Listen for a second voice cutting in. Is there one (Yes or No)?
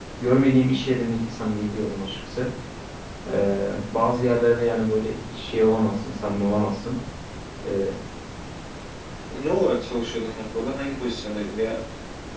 No